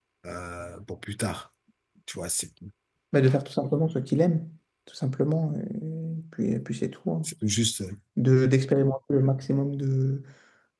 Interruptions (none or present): none